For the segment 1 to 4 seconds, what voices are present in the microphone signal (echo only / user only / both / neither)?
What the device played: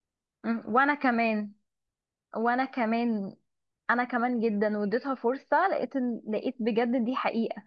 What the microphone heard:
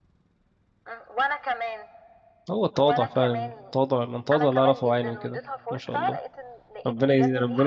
both